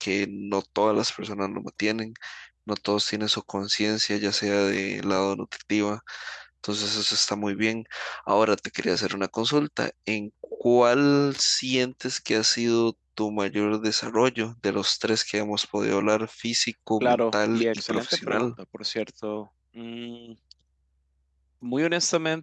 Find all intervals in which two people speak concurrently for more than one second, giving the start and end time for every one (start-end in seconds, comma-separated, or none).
17.0-18.5